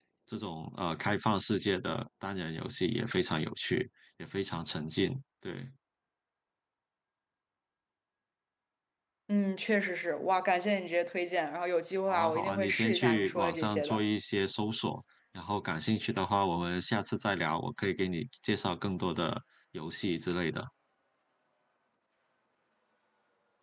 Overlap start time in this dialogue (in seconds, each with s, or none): 12.1 s